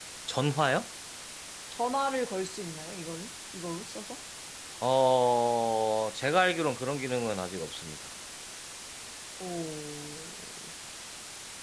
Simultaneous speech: No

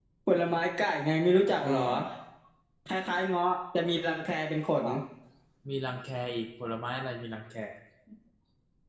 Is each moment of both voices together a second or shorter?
Yes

